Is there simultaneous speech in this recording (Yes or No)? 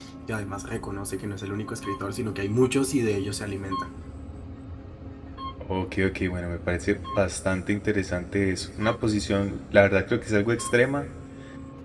No